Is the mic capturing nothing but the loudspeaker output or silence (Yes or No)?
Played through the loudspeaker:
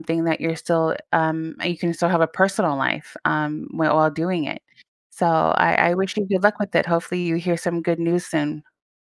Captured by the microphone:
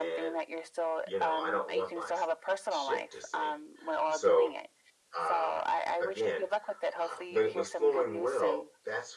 No